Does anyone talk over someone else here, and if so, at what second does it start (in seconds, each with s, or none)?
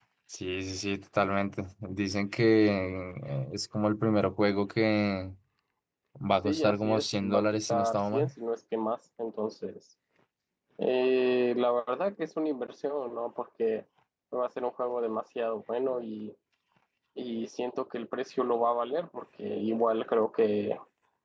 6.4 s